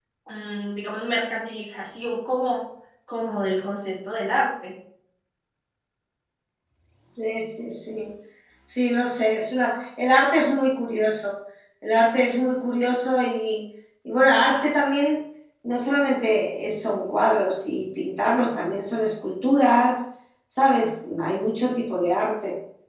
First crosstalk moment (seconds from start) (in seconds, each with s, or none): none